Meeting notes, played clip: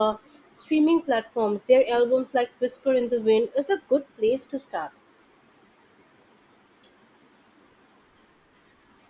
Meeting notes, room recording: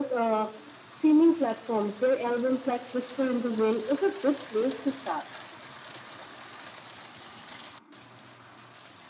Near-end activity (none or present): none